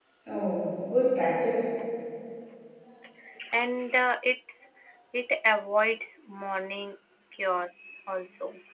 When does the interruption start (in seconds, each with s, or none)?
none